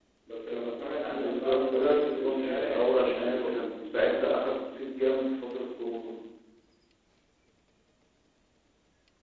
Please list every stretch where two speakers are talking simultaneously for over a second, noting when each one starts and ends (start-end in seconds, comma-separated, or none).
1.1-3.6